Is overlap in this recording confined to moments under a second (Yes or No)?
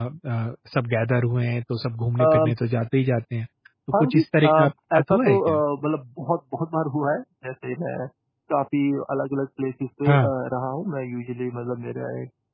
No